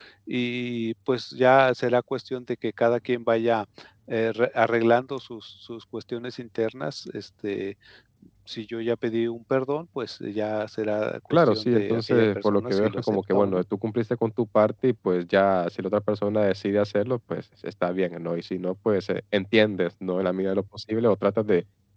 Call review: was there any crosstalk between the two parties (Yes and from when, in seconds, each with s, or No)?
Yes, from 11.3 s